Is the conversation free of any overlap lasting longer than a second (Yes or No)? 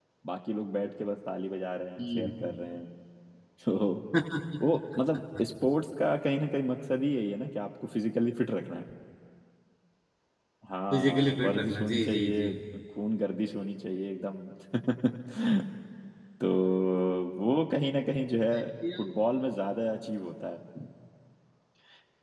No